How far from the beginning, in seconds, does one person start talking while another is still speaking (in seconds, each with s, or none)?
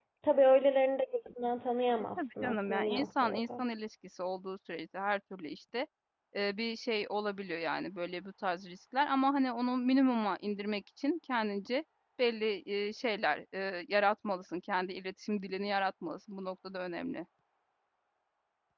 2.2 s